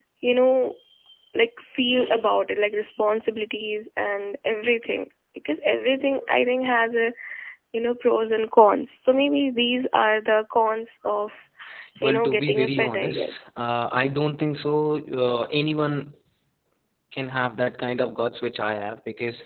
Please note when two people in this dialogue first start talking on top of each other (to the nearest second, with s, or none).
12 s